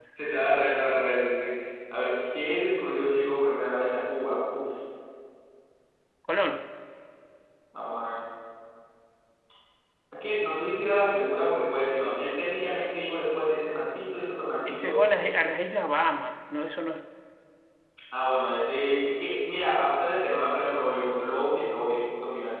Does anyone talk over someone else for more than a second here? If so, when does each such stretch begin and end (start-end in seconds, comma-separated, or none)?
none